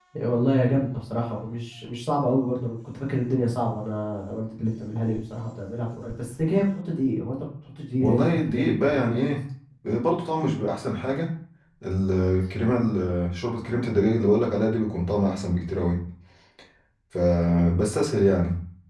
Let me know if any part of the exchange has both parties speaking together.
Yes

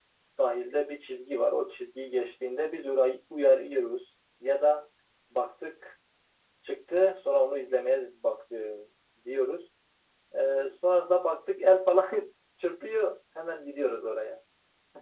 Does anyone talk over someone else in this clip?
No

